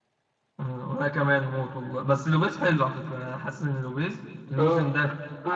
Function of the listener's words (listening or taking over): taking over